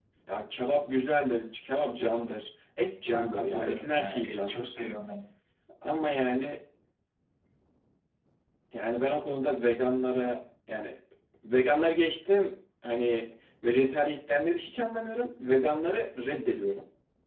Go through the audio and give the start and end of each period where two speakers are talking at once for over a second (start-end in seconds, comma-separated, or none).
3.1-4.7